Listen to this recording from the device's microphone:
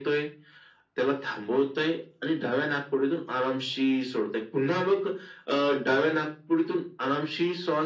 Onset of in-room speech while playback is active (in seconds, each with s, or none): none